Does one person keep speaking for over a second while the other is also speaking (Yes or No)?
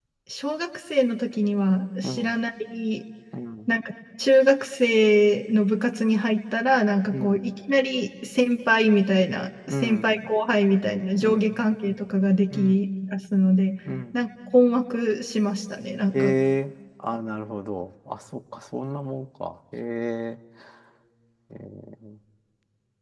No